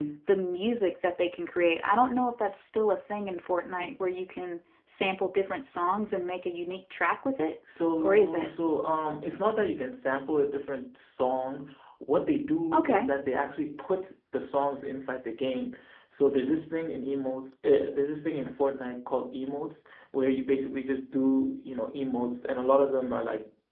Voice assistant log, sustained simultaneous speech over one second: none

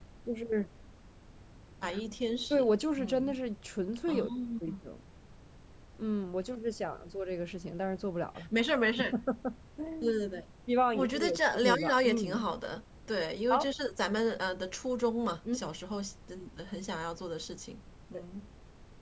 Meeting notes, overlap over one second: present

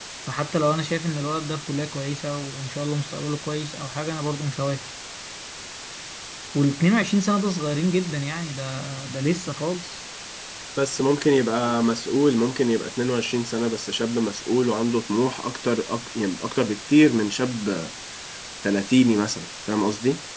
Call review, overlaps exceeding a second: none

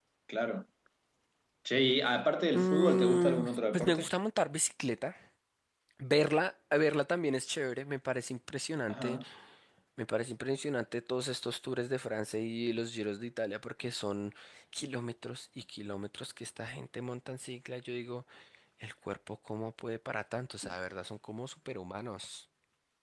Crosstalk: present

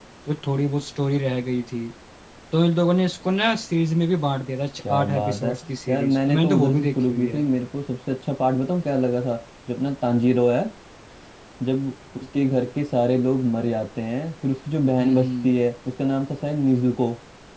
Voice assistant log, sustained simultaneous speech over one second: present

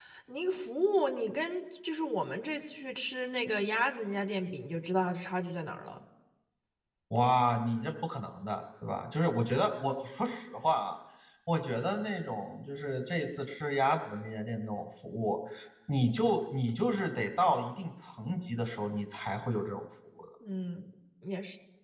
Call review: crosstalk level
none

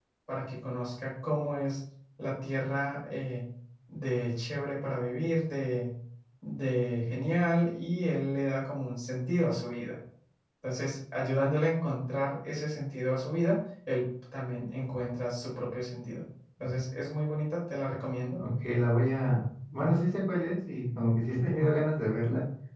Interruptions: none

